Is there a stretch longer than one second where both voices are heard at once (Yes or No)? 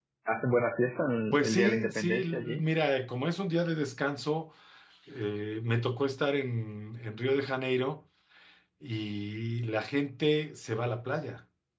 Yes